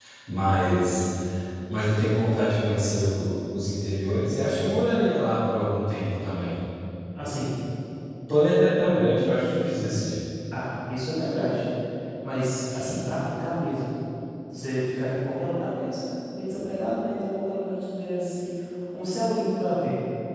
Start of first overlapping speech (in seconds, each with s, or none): none